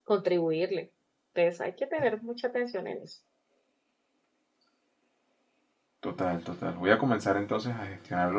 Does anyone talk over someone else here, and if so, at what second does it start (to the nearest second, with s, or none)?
none